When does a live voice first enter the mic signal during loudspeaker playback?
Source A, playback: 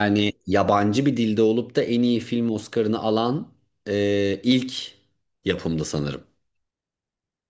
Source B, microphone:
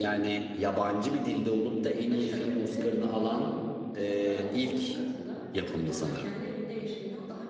2.1 s

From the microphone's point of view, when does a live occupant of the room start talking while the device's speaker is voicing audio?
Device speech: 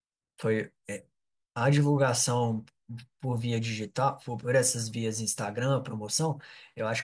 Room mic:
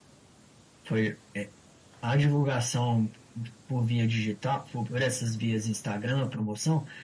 none

